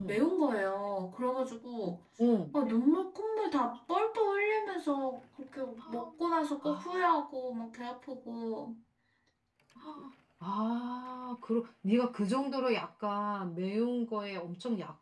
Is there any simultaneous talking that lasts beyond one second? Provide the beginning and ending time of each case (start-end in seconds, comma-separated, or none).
none